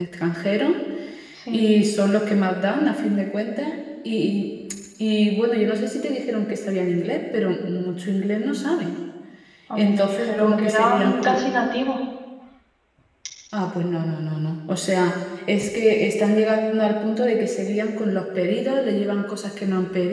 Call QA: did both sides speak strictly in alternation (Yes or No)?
No